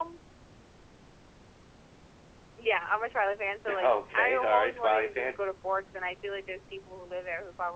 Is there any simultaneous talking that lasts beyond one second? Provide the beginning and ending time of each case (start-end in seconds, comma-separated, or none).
3.8-5.3